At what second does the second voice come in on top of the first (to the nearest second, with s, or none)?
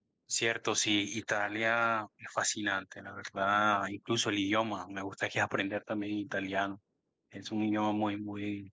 none